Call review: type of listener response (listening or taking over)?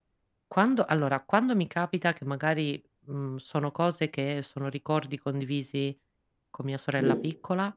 listening